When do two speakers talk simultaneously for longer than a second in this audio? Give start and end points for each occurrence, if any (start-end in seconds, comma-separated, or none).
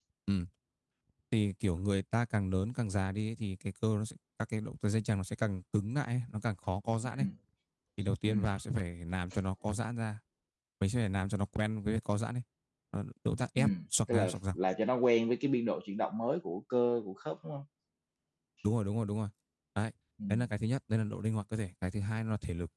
none